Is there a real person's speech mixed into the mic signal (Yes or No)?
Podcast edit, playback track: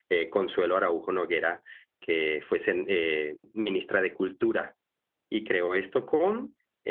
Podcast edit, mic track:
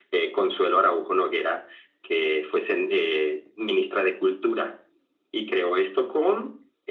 No